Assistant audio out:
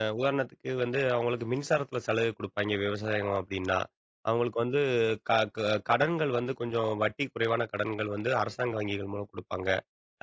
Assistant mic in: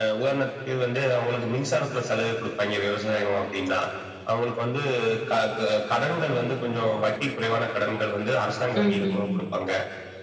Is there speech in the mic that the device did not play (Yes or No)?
Yes